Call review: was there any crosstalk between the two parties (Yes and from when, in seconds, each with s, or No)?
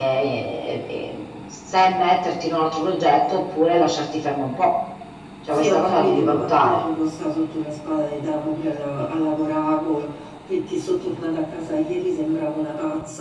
Yes, from 5.5 s